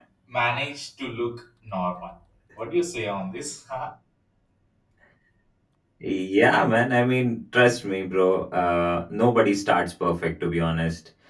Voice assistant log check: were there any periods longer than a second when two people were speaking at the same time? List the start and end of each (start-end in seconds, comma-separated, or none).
none